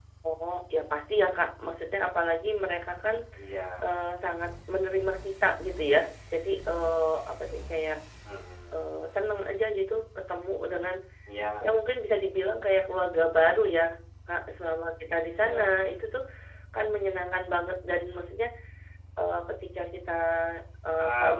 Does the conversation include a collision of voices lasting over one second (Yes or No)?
No